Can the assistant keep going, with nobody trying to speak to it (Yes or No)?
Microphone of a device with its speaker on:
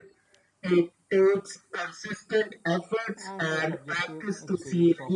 No